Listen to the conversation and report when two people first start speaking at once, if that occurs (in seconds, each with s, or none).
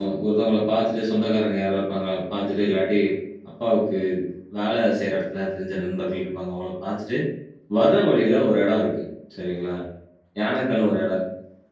none